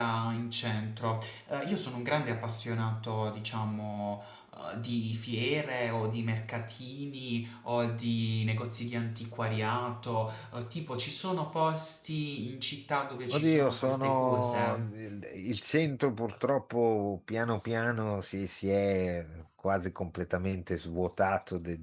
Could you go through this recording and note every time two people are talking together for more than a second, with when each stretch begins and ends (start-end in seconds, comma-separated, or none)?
13.3-14.9